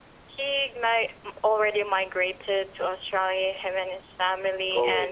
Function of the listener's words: listening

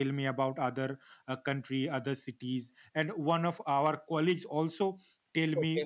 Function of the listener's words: listening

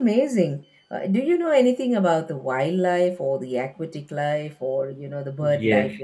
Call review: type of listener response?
taking over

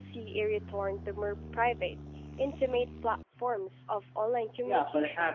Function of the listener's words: taking over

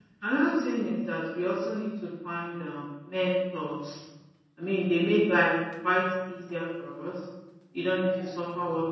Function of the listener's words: listening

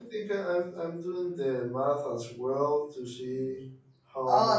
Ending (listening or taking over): taking over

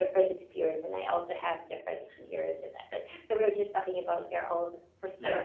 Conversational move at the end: listening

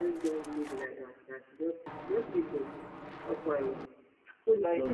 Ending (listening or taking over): listening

